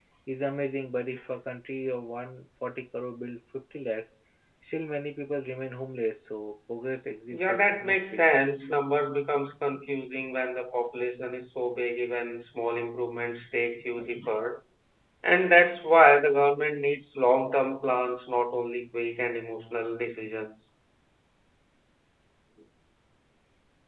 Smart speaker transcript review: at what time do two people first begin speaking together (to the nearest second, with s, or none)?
7 s